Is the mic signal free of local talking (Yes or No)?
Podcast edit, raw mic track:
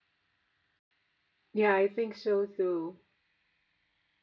No